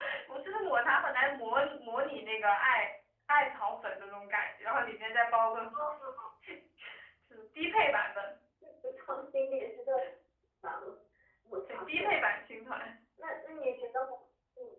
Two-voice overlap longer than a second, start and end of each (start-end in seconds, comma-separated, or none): none